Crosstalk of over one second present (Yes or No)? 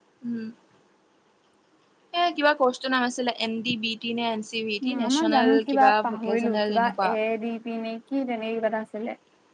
Yes